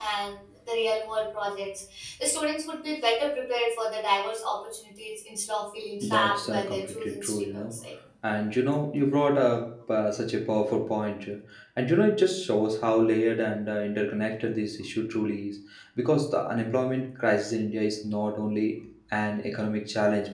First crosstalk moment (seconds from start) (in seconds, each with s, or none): 6.0 s